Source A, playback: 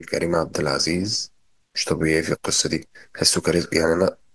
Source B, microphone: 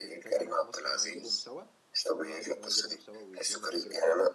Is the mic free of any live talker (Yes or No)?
No